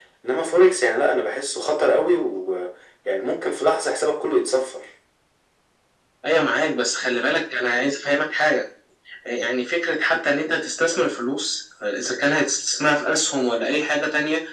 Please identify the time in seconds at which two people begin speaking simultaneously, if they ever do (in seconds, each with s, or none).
none